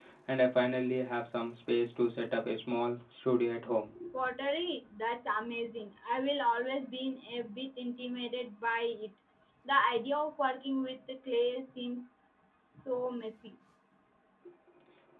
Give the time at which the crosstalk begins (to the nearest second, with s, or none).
none